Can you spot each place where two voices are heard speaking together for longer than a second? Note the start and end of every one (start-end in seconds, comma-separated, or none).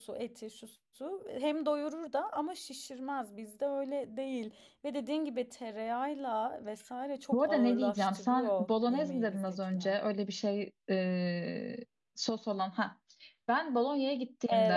7.3-10.0